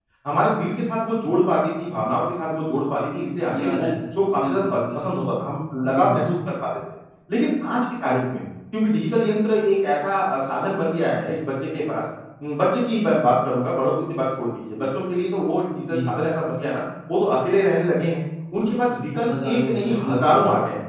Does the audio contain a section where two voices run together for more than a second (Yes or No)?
Yes